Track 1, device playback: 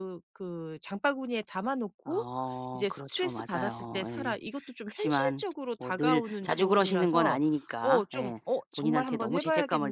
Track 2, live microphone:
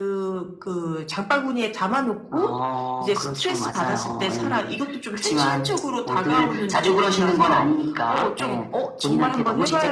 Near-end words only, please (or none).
none